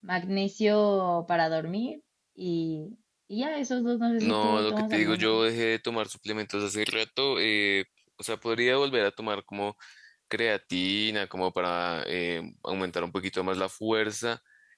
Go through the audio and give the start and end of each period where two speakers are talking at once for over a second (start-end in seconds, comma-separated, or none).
4.2-5.4